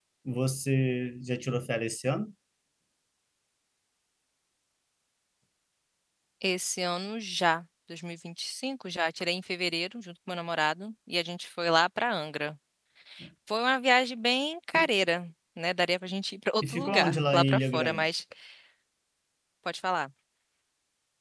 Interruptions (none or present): present